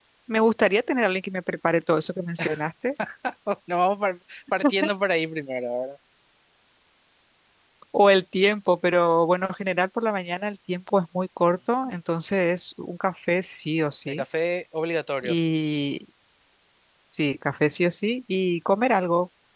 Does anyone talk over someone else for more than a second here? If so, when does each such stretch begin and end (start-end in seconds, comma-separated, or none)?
none